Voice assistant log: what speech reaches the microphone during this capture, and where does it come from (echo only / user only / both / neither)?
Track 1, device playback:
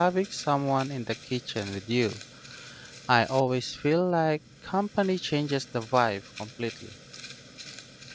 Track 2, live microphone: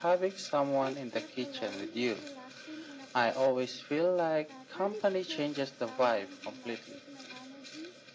both